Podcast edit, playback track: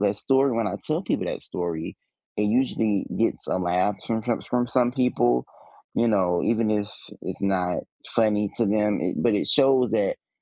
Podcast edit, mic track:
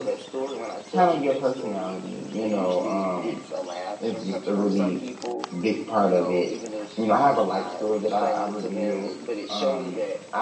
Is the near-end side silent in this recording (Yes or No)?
No